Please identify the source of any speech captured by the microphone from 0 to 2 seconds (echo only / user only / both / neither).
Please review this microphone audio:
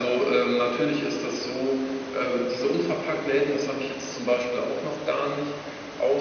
echo only